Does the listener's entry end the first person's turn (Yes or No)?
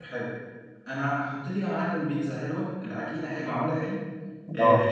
No